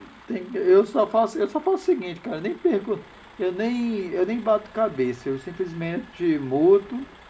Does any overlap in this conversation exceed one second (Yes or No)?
No